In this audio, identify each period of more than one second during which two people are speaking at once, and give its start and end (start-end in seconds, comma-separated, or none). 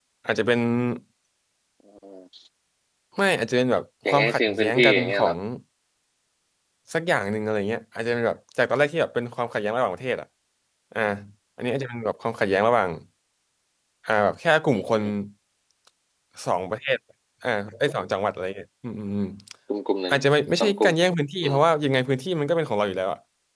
4.1-5.3